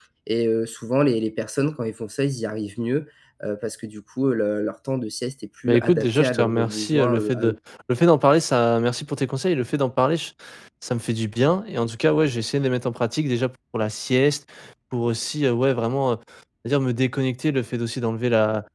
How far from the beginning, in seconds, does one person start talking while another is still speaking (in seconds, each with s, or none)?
5.7 s